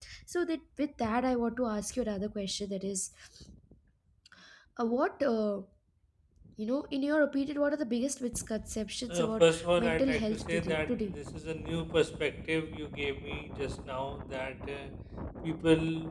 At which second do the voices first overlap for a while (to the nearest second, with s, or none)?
9 s